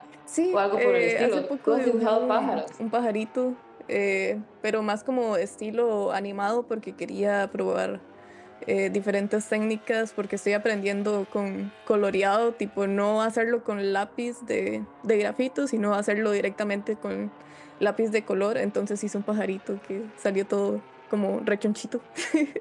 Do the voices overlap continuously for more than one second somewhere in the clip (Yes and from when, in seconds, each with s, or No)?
Yes, from 0.5 s